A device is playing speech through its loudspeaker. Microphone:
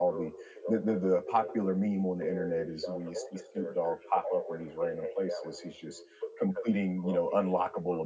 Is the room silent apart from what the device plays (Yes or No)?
No